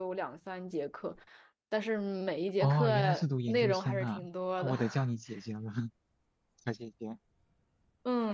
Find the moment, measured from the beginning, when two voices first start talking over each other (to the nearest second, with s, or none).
3 s